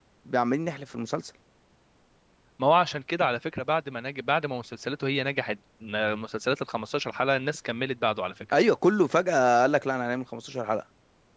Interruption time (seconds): none

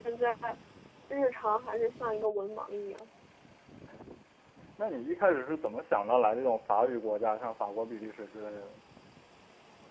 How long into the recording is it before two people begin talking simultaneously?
none

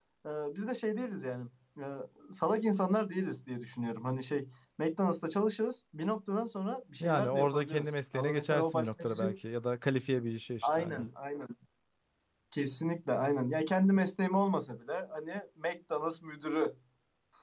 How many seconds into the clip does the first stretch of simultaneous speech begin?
7.0 s

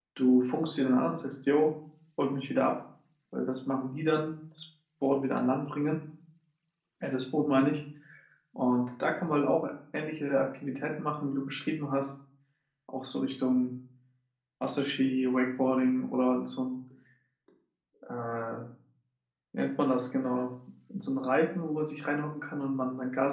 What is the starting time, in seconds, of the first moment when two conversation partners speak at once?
none

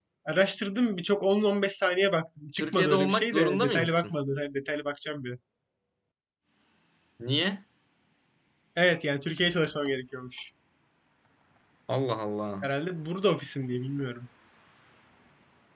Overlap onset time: 2.6 s

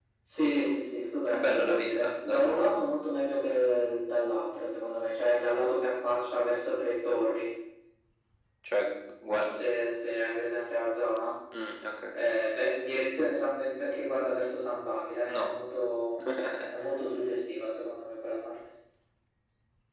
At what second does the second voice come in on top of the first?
1.3 s

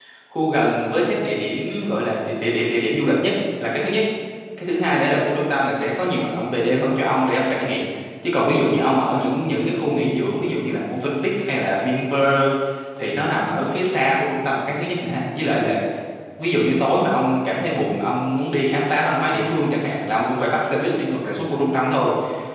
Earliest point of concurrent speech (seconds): none

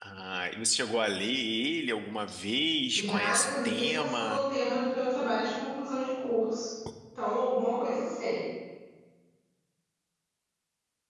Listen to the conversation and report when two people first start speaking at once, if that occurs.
2.9 s

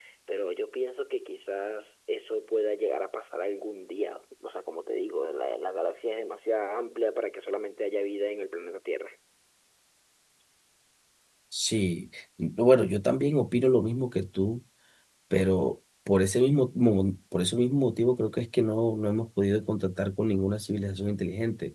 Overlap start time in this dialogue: none

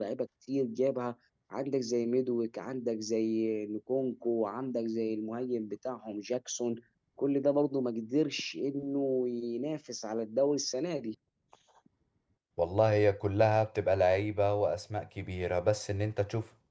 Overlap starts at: none

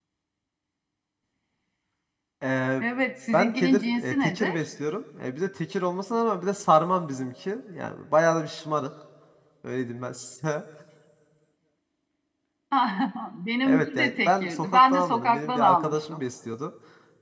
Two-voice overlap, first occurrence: 3.3 s

